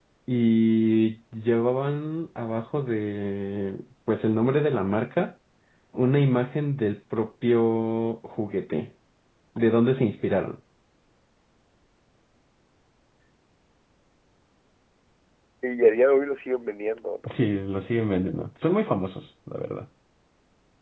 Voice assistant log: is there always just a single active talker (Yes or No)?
Yes